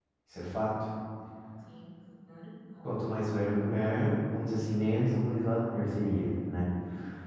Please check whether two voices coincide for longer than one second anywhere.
No

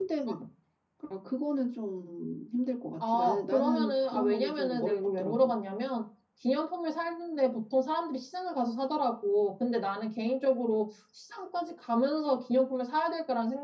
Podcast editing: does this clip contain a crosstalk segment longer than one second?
Yes, from 3.0 s

